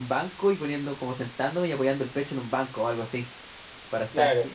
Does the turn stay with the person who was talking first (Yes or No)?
Yes